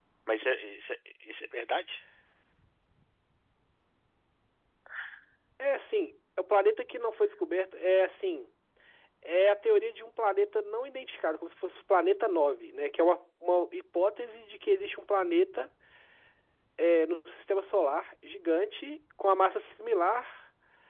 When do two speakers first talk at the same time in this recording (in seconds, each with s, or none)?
none